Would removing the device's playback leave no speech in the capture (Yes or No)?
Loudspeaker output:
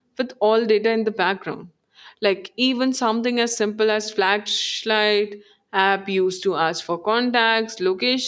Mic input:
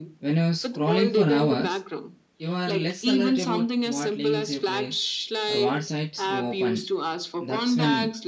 No